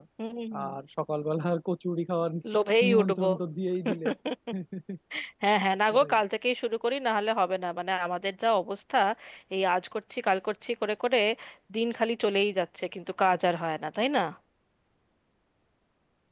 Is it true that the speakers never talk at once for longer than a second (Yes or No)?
Yes